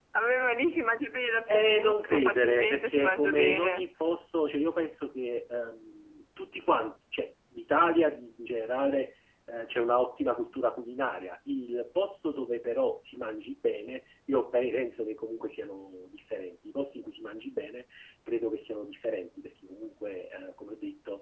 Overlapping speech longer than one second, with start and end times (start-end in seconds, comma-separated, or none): 1.5-3.8